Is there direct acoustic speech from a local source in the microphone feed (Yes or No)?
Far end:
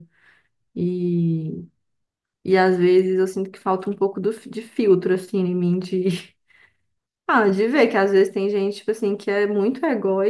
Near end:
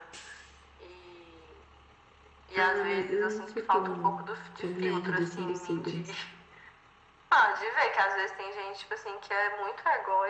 Yes